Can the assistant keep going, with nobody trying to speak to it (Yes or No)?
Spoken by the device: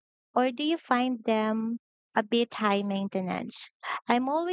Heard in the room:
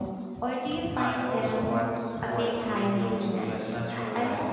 No